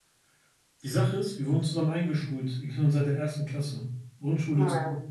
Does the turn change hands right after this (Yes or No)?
No